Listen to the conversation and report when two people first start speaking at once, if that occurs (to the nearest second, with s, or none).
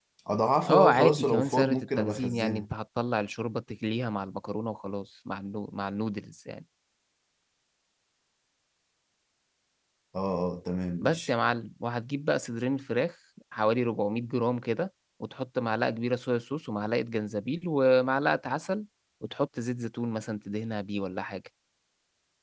1 s